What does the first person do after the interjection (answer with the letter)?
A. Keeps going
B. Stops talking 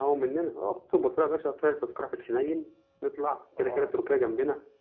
A